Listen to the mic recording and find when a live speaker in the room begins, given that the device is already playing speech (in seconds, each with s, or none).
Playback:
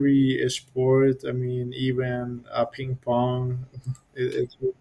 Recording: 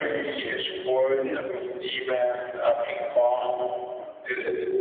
1.1 s